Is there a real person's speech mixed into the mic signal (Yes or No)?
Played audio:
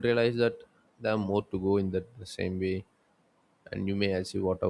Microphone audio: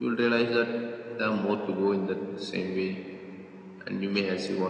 No